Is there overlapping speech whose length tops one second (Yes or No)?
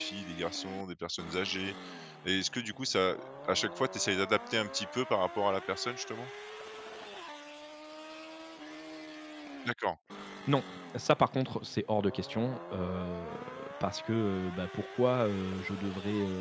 No